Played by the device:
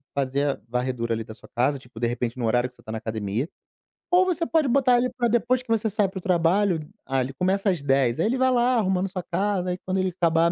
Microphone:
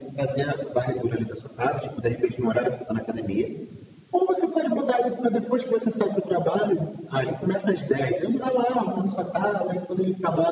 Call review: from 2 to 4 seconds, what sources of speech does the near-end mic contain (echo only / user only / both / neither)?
echo only